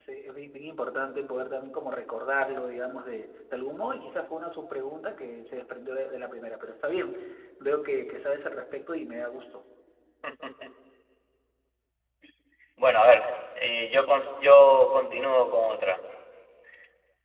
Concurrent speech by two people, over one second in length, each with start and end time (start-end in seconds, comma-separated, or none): none